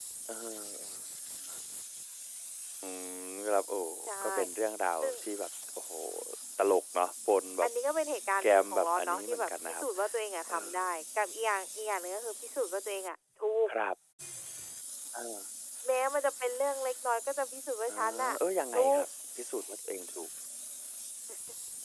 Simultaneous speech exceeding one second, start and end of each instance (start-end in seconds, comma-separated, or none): 8.4-9.8